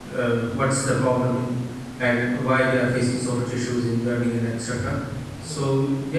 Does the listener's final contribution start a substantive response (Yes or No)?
No